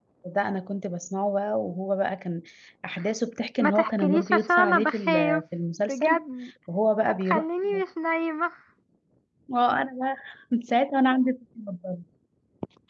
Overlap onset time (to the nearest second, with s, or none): 4 s